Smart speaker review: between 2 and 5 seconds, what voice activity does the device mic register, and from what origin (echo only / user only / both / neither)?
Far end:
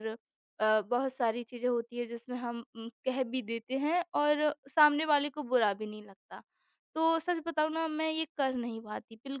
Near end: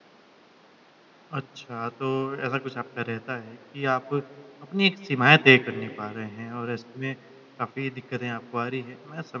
user only